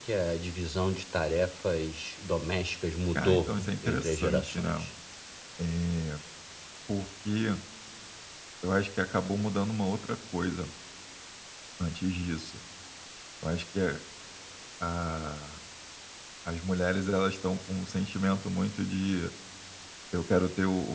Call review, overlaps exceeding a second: present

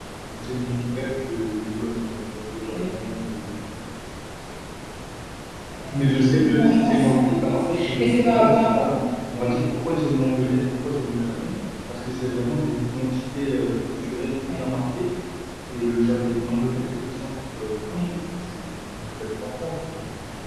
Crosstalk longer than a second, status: present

